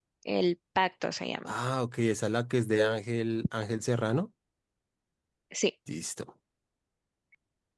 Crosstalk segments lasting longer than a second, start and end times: none

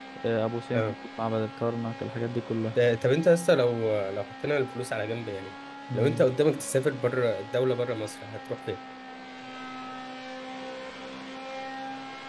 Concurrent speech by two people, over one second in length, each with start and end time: none

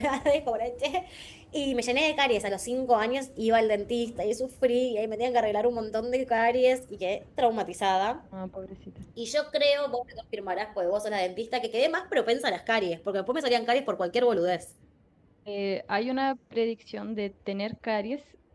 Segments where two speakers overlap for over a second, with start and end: none

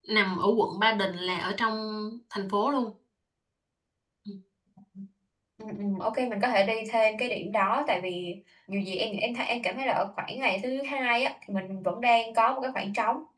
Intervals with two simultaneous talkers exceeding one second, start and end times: none

